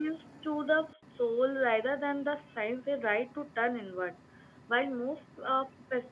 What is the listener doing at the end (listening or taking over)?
listening